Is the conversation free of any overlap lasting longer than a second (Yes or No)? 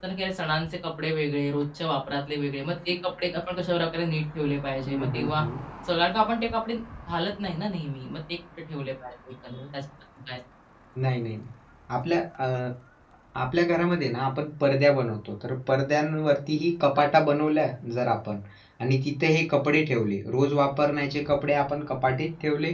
Yes